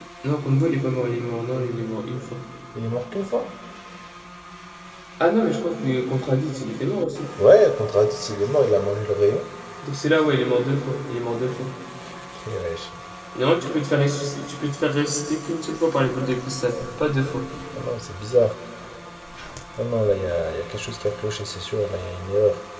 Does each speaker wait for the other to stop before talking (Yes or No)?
Yes